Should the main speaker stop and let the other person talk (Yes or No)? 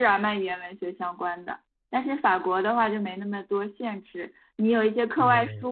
No